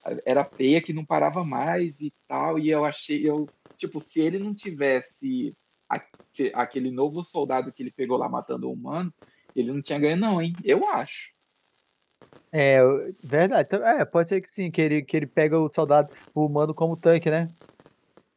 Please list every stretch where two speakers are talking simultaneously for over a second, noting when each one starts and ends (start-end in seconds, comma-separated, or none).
none